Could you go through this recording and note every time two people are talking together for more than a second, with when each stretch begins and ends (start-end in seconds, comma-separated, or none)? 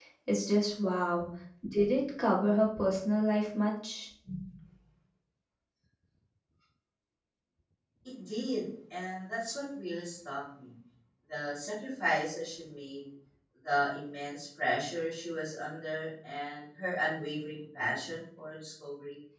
none